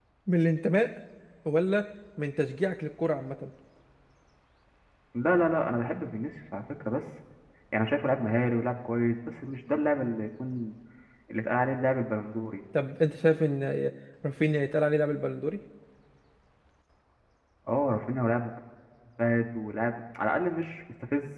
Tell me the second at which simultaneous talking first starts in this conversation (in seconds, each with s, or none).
none